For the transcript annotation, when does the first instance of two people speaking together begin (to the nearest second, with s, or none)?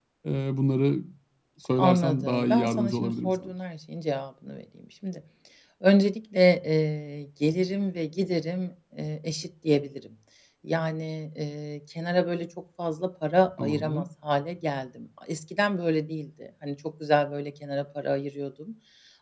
2 s